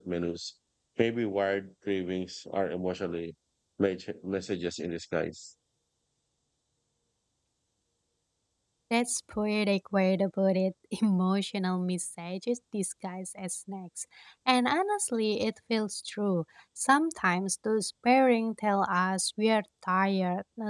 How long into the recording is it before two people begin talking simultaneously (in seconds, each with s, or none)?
none